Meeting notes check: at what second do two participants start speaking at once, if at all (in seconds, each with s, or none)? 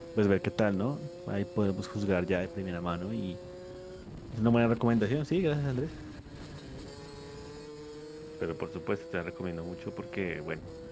none